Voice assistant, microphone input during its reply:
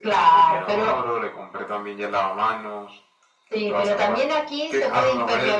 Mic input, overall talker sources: echo only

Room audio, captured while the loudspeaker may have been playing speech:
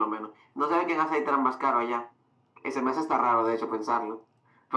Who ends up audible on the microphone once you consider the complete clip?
echo only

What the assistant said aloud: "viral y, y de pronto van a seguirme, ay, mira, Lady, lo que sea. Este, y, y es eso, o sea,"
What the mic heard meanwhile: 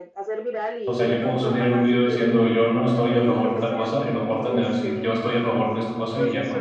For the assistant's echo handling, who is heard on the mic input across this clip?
both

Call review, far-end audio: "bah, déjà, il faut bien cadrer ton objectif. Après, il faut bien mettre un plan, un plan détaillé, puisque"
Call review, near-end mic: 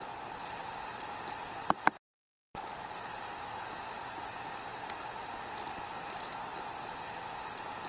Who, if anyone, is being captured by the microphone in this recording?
neither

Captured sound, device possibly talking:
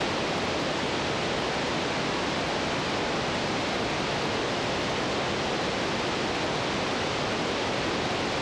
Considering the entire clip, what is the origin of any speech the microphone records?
neither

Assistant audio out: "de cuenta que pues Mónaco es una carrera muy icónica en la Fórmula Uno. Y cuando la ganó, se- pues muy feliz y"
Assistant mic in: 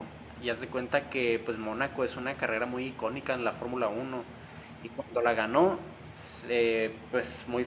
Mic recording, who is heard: echo only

